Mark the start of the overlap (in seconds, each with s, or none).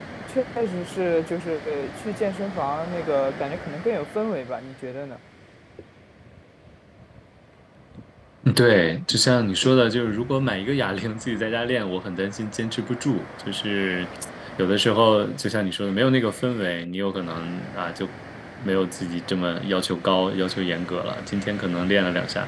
none